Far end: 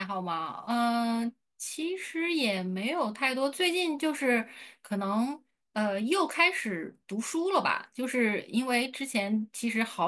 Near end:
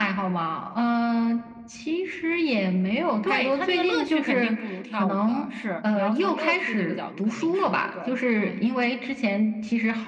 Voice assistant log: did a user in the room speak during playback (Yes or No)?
Yes